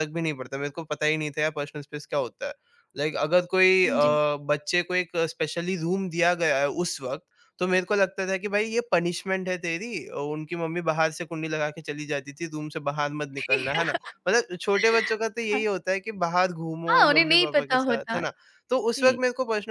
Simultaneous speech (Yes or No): Yes